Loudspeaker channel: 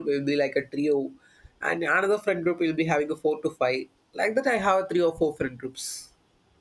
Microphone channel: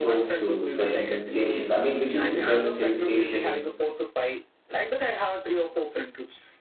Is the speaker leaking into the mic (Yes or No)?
Yes